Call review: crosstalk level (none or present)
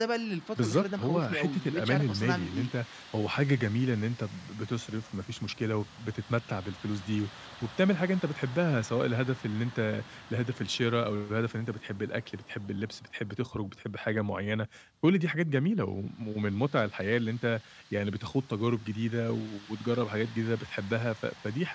present